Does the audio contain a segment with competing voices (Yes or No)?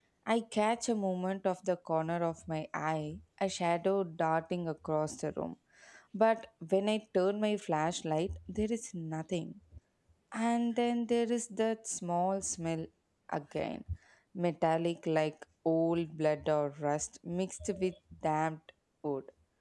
No